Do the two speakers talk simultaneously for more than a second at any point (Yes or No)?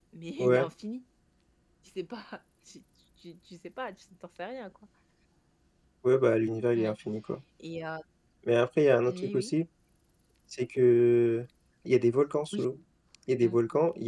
No